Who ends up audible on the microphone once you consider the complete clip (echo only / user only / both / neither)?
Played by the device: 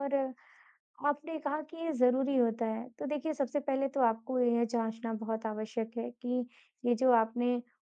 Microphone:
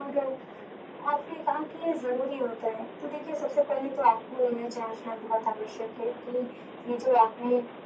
echo only